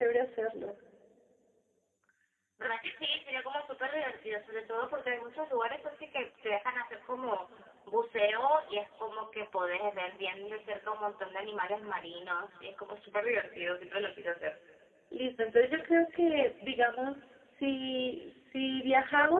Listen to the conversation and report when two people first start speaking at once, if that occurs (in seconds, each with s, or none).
none